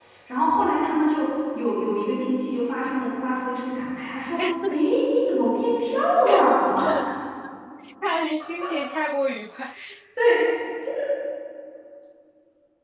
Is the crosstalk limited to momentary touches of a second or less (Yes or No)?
Yes